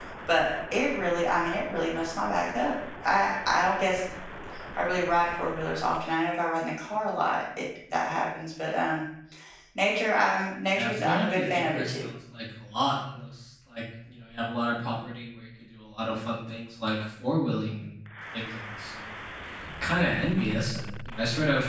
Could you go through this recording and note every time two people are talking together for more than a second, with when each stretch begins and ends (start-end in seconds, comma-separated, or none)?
10.8-12.1